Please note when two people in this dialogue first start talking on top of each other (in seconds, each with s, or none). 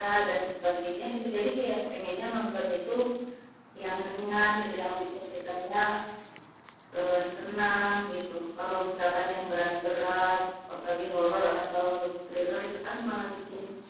none